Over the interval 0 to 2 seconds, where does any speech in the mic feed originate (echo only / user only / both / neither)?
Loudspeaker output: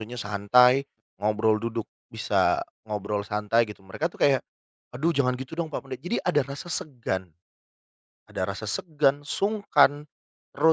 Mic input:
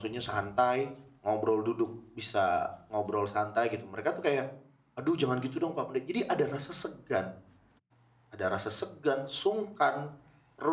echo only